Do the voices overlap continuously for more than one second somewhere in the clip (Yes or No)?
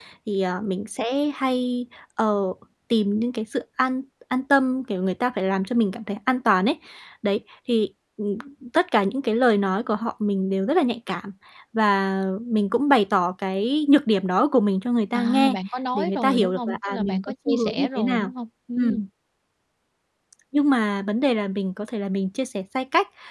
Yes